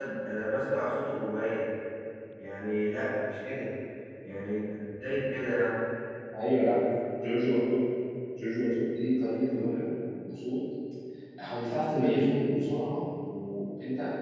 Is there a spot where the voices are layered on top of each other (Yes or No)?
No